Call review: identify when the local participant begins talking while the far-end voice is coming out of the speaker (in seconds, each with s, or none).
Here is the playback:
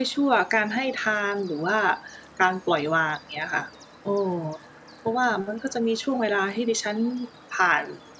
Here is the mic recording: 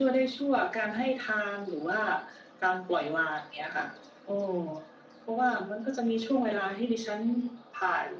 none